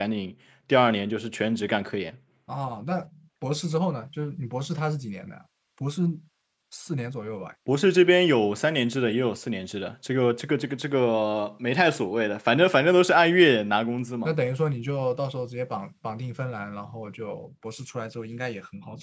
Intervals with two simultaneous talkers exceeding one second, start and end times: none

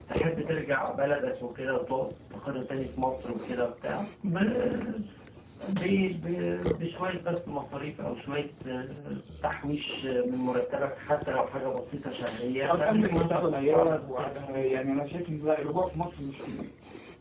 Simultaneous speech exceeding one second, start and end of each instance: 12.6-14.9

